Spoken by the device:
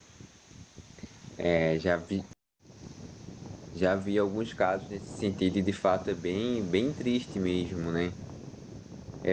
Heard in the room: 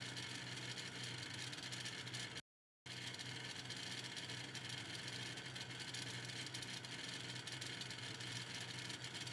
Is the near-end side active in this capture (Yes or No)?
No